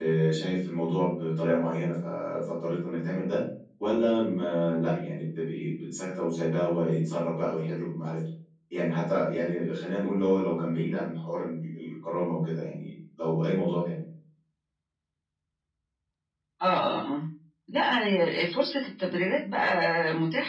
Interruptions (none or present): none